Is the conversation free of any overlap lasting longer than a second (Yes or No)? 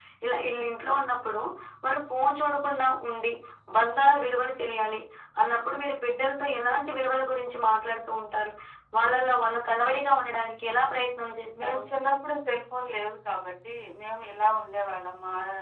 Yes